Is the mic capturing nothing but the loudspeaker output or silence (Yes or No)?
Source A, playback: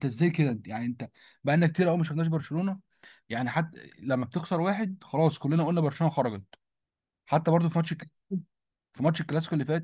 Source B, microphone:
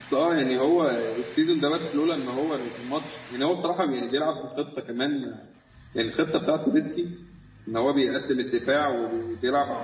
No